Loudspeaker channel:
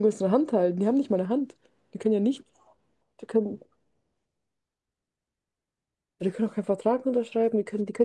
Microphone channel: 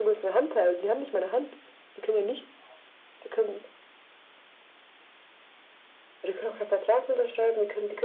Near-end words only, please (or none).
none